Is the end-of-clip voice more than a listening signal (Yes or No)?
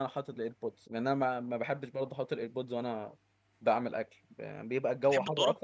No